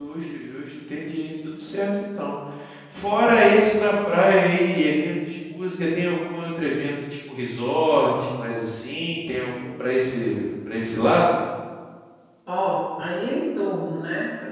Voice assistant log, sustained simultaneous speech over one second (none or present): none